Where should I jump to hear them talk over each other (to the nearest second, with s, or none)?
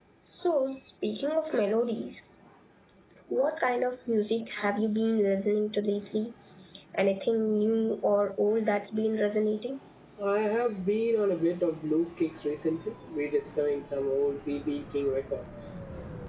none